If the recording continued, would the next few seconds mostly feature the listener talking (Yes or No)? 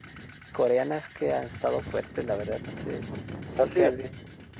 No